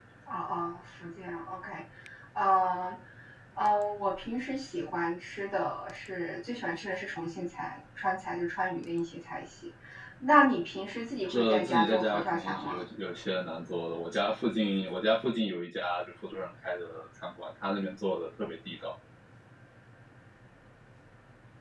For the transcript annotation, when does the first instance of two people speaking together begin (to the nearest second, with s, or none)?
11 s